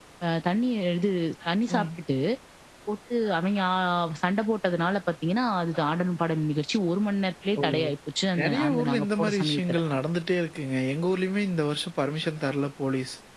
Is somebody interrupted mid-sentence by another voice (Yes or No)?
Yes